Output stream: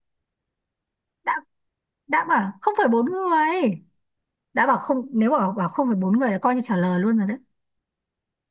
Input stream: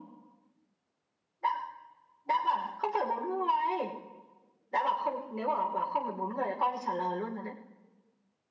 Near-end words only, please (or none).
none